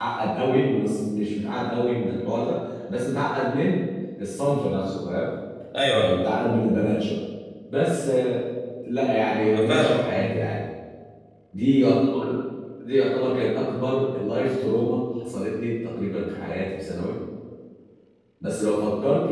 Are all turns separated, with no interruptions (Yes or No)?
No